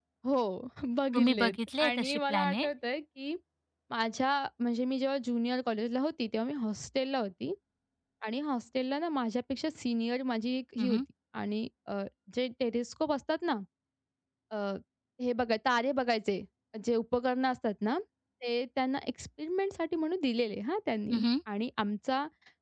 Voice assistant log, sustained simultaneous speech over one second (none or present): present